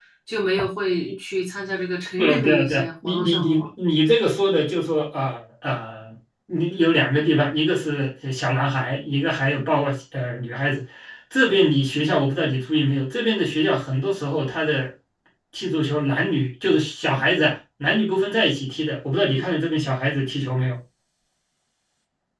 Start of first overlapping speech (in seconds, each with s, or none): 2.2 s